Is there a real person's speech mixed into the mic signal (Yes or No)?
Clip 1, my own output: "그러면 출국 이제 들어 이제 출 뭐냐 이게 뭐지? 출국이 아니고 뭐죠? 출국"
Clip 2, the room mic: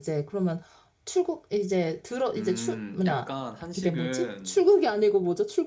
Yes